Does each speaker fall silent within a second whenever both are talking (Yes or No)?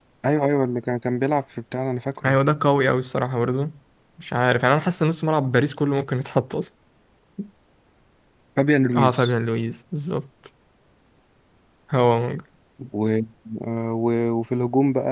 Yes